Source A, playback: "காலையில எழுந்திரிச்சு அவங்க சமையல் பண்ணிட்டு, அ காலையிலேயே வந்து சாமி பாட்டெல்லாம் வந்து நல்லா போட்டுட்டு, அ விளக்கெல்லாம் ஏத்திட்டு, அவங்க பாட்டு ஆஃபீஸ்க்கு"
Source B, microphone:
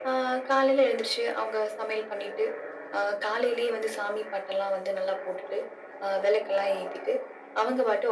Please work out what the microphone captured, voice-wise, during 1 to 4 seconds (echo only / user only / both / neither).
echo only